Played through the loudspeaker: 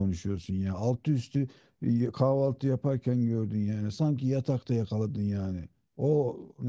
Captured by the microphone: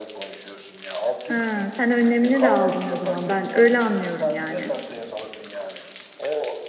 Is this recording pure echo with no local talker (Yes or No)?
No